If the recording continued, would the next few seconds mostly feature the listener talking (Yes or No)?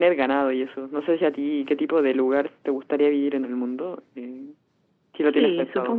Yes